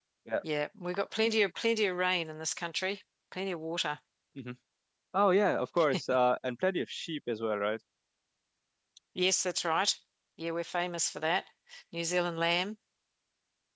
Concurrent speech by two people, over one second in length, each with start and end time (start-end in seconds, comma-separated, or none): none